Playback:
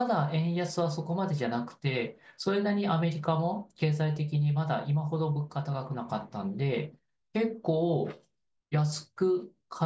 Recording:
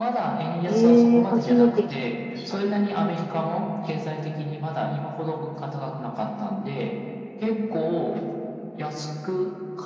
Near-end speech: present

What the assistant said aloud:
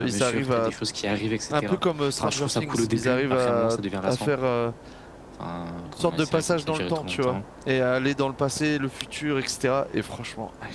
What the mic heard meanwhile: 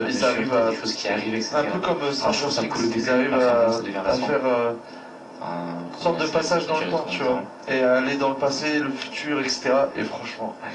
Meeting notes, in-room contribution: none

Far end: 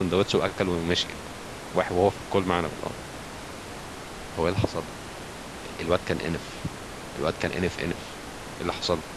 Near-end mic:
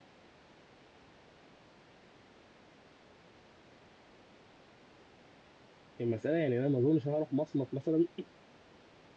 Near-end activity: present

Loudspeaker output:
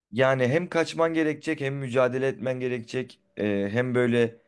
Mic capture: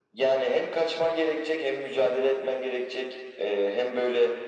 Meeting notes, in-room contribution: none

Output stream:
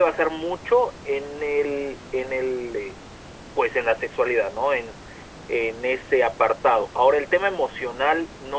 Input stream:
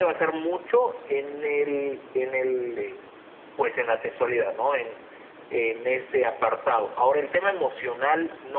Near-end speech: none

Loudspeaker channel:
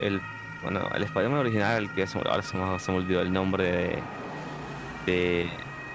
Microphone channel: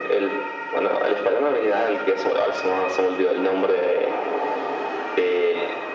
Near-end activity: none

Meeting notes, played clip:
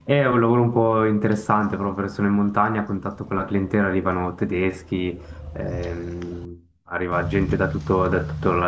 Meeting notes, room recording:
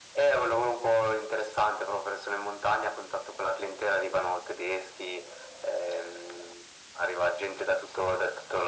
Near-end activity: none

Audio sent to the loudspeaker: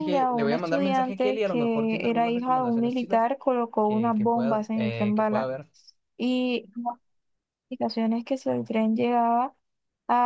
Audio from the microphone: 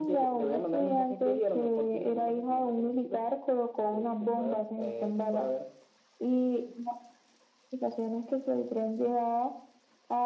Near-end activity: none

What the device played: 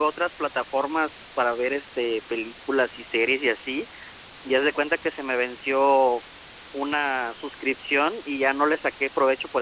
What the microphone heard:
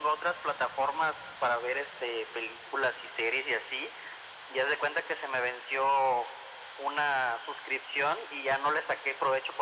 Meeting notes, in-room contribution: none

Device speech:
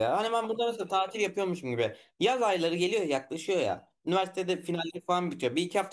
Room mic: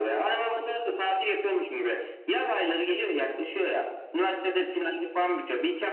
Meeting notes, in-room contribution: none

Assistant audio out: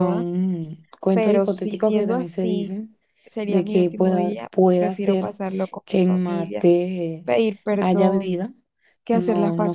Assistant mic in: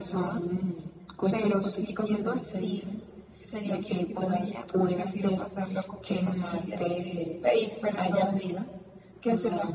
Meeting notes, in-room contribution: none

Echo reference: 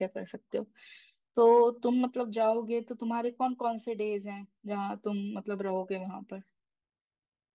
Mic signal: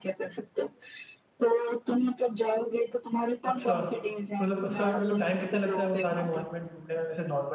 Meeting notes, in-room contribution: present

